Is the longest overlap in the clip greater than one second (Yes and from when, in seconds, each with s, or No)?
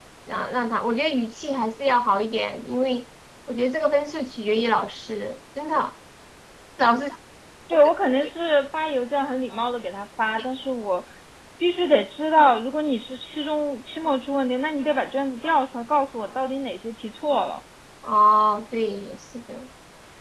No